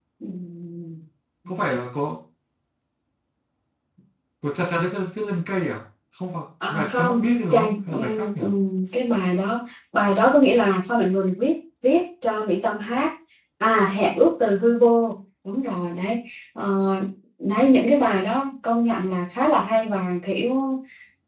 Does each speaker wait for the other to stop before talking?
No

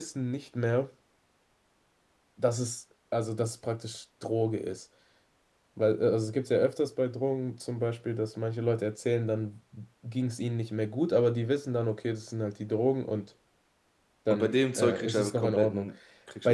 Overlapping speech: Yes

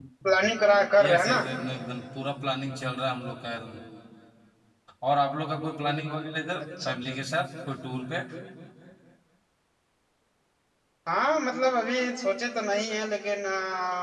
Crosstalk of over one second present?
No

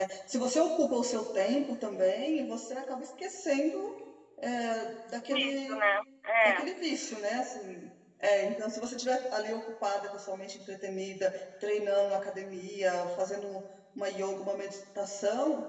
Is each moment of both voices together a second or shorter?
Yes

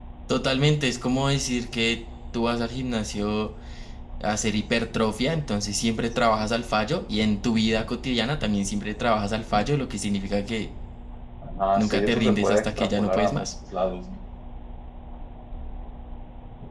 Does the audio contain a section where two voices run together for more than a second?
Yes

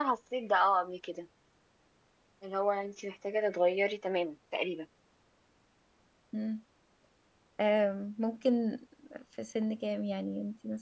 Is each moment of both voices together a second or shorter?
Yes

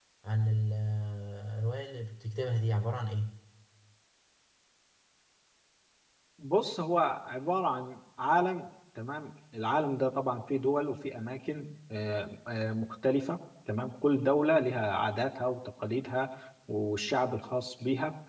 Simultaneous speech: No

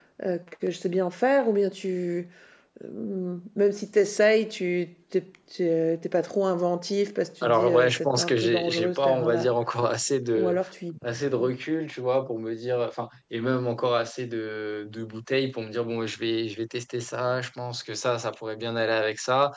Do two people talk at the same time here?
Yes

